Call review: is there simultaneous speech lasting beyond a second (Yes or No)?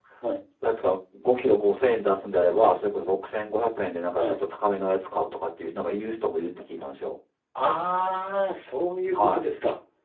No